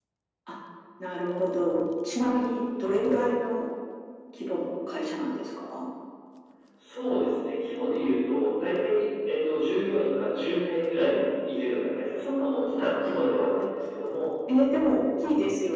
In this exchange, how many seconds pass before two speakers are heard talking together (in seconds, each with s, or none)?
none